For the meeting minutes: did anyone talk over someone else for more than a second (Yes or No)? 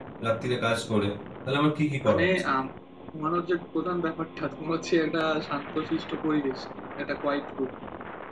No